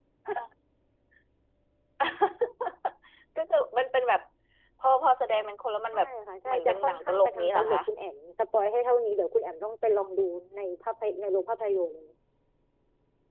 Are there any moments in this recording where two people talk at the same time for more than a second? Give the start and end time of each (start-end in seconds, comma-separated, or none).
6.5-7.8